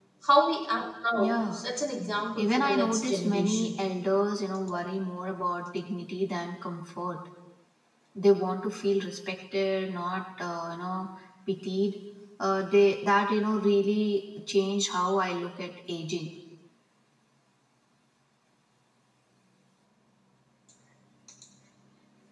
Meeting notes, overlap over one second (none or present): present